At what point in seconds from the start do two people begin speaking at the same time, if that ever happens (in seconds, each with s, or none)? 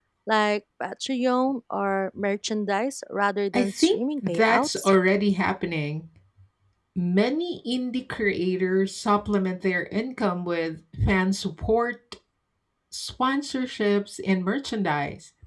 3.5 s